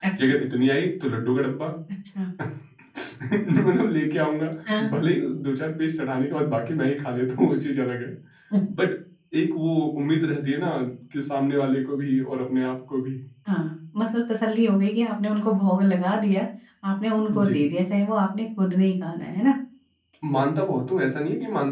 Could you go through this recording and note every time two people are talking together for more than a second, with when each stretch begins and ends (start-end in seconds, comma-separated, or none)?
none